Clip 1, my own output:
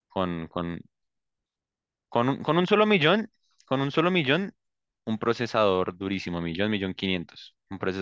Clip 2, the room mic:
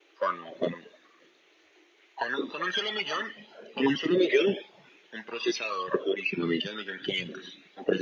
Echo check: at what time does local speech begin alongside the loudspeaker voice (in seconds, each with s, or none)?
none